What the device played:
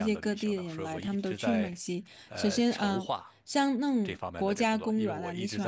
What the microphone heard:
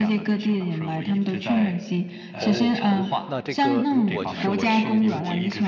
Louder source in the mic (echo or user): echo